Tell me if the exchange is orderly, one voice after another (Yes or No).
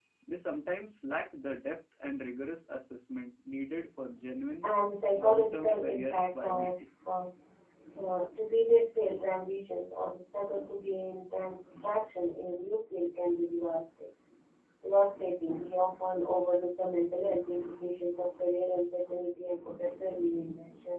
No